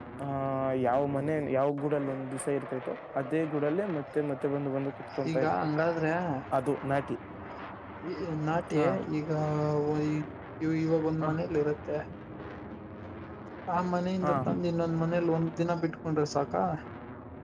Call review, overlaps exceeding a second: none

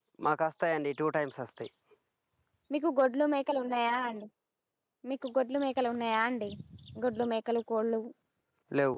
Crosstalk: none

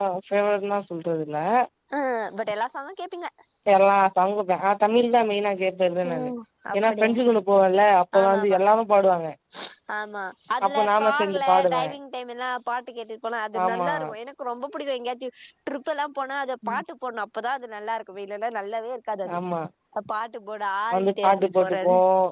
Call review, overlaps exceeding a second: present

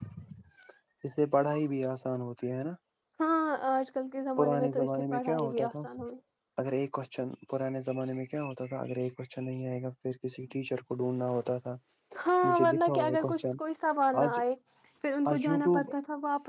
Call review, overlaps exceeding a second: present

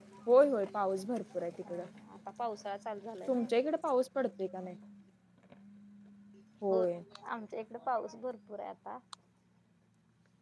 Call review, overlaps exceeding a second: none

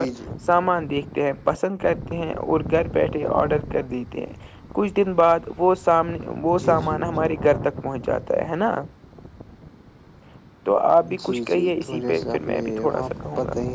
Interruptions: present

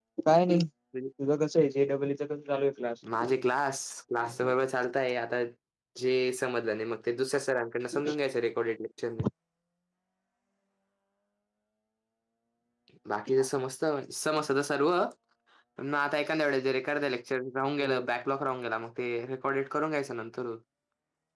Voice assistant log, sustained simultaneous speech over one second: none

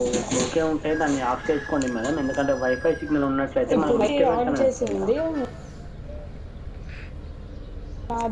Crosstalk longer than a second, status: present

